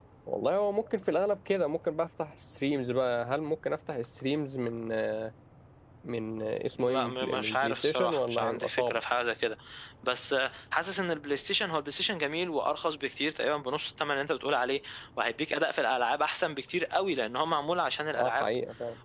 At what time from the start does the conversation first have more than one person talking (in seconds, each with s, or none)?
6.8 s